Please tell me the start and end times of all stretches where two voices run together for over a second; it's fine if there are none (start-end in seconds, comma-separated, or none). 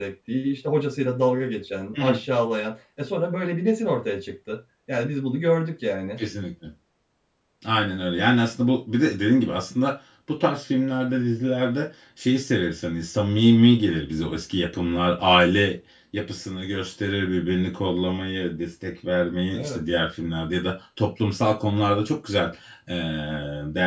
none